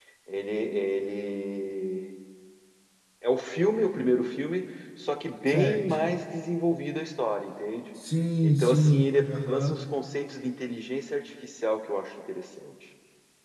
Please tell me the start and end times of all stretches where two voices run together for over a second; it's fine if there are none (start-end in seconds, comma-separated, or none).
8.4-9.8